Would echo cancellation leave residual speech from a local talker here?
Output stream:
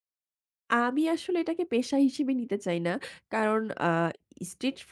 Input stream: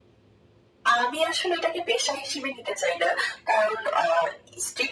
No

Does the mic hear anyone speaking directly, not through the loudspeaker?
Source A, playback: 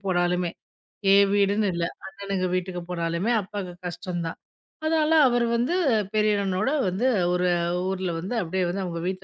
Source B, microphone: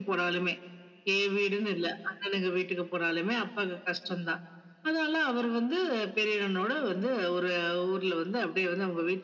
No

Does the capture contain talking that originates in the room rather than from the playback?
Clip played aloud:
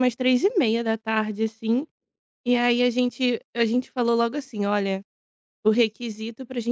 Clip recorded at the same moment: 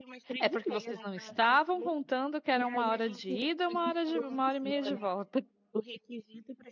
Yes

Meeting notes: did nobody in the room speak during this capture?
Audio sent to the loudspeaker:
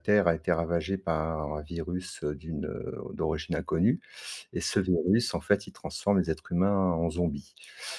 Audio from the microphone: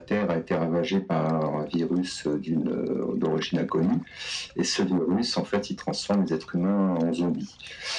Yes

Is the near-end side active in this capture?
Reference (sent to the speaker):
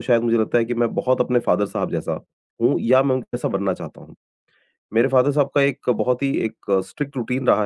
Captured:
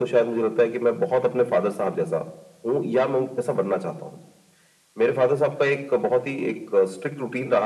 No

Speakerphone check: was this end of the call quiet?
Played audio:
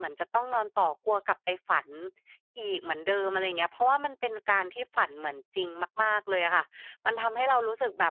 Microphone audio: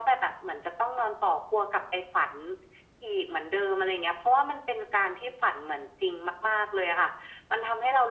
Yes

